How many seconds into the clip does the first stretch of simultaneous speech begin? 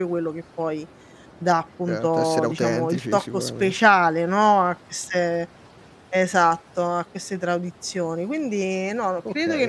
1.9 s

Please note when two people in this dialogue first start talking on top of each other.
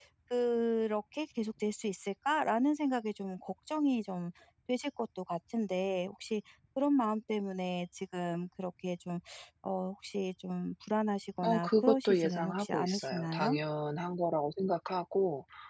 11.4 s

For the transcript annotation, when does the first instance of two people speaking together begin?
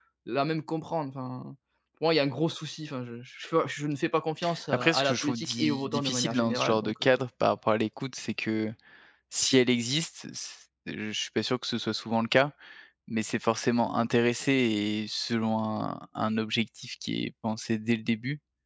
4.7 s

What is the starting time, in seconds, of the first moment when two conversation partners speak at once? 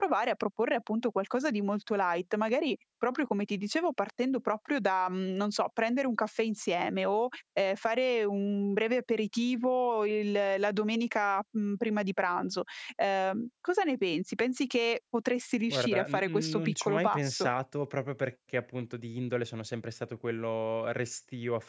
15.7 s

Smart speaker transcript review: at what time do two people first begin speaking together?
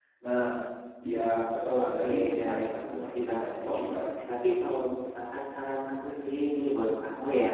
1.8 s

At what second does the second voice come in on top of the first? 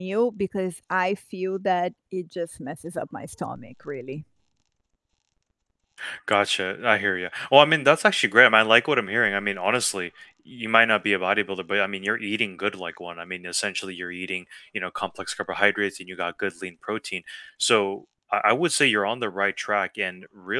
none

